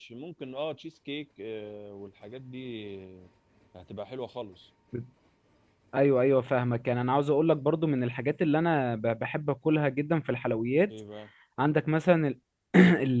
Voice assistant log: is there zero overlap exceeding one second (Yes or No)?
Yes